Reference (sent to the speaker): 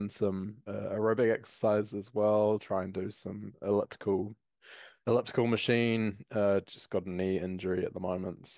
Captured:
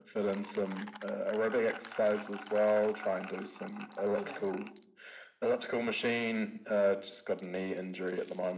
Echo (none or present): present